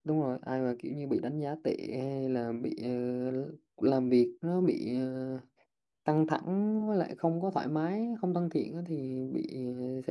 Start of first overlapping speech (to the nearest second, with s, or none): none